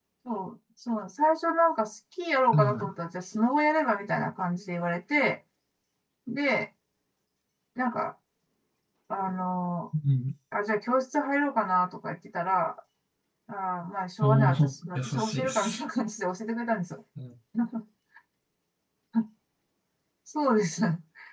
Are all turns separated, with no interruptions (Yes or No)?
No